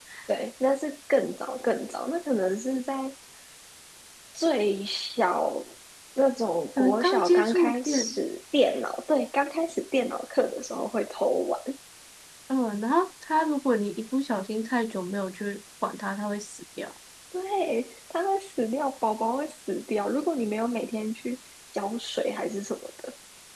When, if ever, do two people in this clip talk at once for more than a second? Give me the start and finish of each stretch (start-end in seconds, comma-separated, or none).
6.8-8.2